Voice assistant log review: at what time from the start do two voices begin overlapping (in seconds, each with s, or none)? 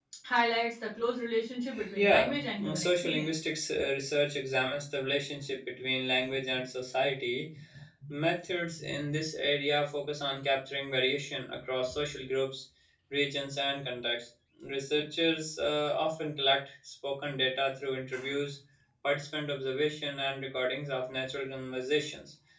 1.9 s